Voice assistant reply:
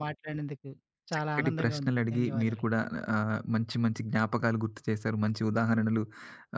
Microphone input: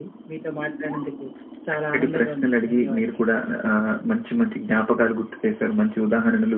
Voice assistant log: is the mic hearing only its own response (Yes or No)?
Yes